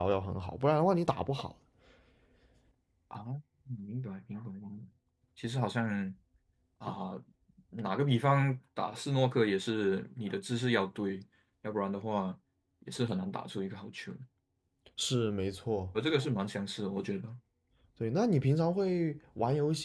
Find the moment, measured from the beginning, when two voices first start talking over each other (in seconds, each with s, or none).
none